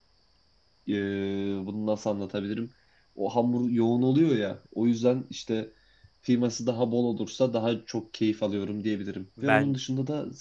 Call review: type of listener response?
listening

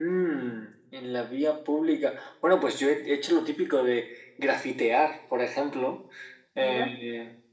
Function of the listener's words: listening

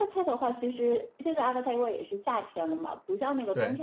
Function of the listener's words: listening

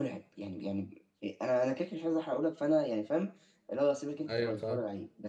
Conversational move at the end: listening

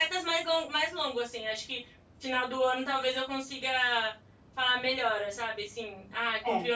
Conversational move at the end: listening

